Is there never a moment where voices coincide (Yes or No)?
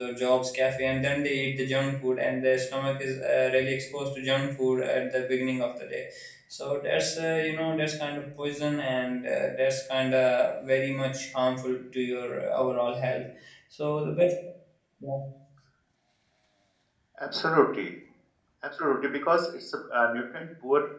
Yes